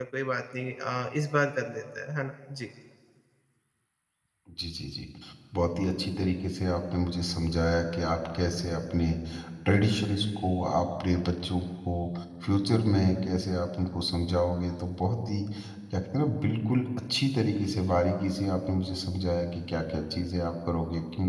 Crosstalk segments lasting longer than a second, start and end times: none

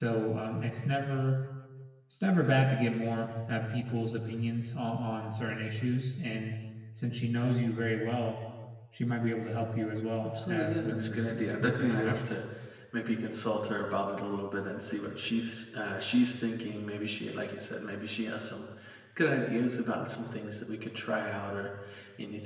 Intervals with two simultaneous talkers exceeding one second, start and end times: 10.2-12.2

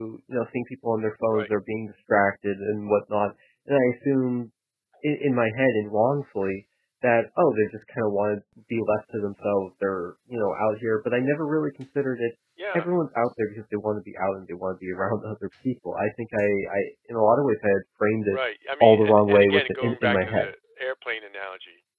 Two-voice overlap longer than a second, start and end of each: 18.8-20.5

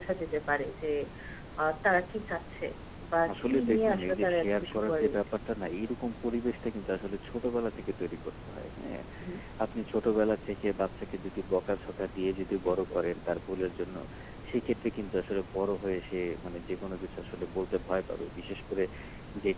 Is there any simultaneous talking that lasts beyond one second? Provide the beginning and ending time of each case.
3.3-5.2

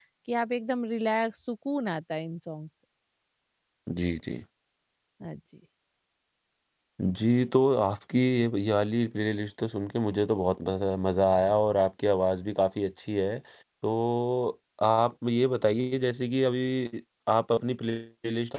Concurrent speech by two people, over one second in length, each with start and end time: none

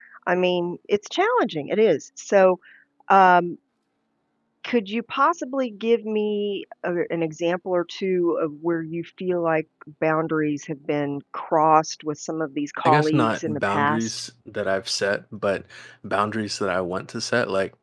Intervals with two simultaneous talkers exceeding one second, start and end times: 12.8-14.2

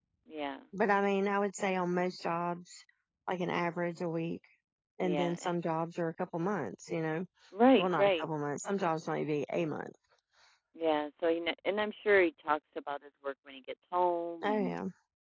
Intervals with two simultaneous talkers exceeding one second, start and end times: none

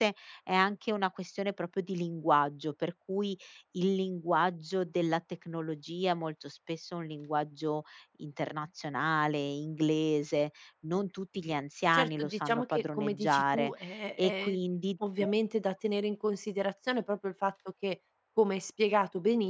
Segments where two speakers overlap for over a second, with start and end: 11.9-13.7

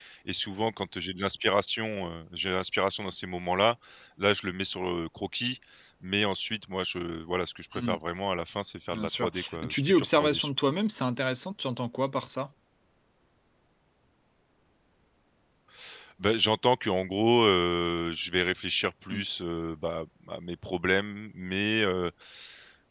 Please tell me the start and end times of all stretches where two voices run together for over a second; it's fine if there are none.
8.9-10.5

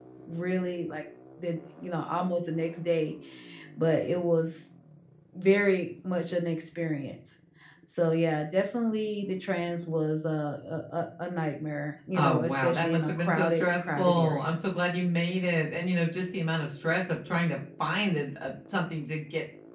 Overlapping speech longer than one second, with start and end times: 12.1-14.6

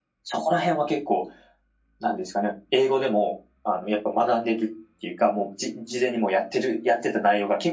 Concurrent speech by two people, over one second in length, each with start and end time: none

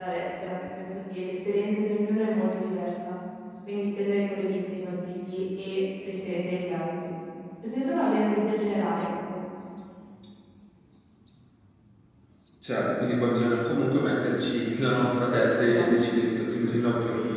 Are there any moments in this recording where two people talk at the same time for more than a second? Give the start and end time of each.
none

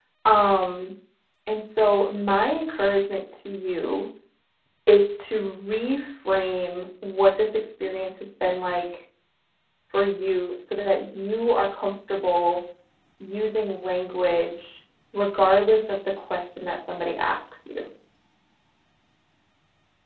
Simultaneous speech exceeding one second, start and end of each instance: none

